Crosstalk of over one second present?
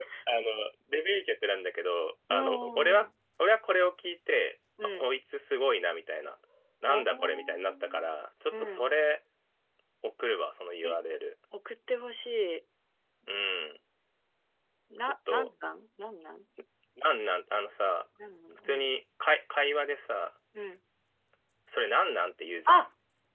Yes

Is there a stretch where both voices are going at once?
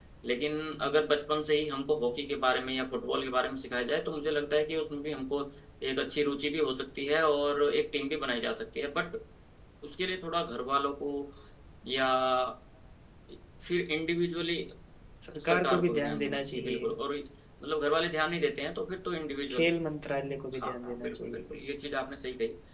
Yes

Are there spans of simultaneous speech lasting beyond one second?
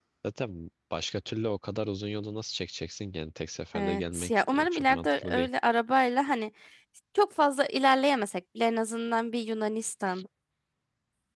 Yes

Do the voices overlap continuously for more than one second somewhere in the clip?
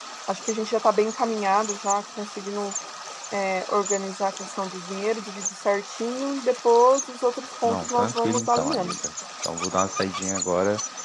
Yes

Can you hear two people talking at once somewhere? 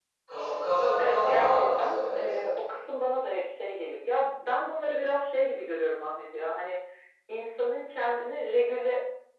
Yes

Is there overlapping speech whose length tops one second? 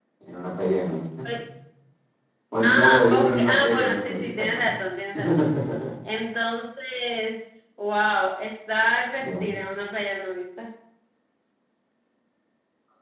Yes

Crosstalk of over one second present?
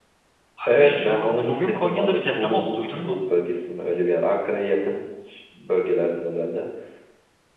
Yes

